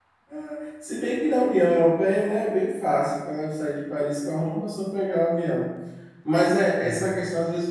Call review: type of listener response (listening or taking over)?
listening